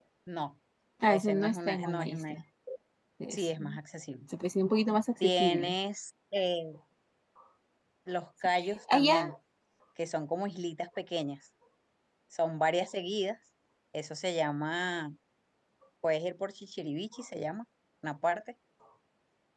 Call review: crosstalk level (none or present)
present